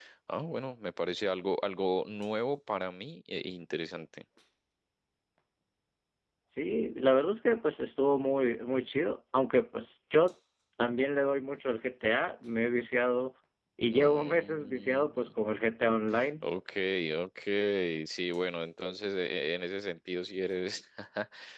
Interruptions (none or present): present